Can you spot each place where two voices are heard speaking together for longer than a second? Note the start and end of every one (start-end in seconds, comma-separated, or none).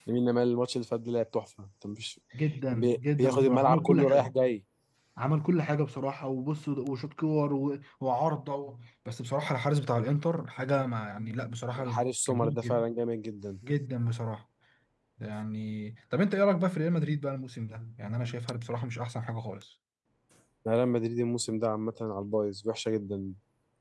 2.7-4.3